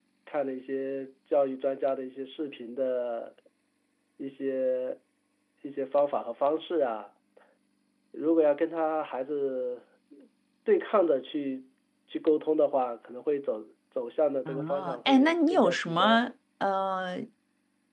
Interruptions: present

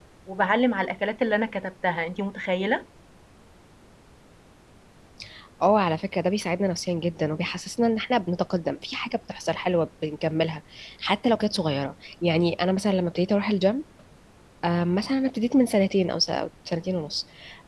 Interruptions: none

